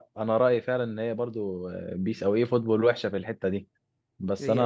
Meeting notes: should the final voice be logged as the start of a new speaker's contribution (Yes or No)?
No